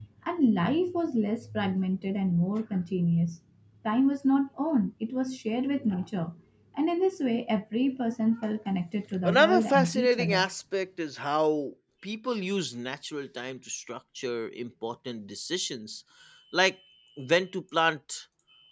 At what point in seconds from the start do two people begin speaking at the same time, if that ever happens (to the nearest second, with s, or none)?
9 s